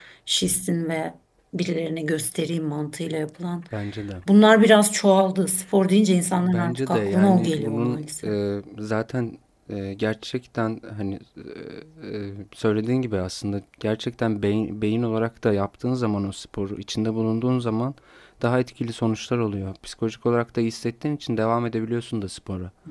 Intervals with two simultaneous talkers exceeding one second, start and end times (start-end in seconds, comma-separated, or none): 6.4-8.3